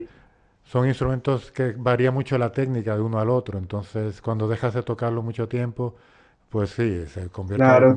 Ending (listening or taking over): taking over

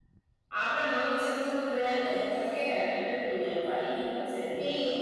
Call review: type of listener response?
taking over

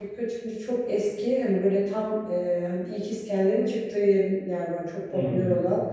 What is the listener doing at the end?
listening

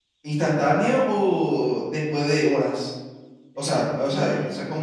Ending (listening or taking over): listening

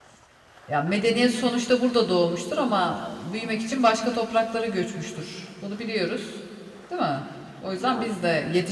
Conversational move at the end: listening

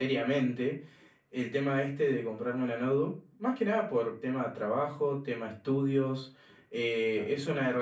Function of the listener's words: listening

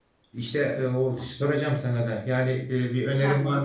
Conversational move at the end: listening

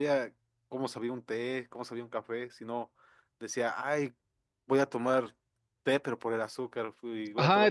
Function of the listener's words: taking over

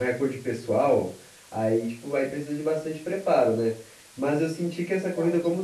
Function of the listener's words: listening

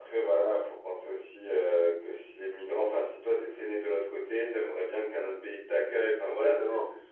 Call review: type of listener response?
listening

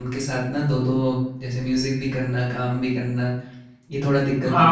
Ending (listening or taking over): taking over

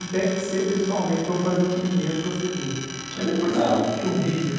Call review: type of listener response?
listening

